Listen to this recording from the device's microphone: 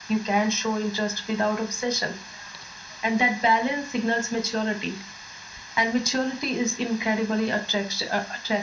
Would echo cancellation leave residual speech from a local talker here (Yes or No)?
No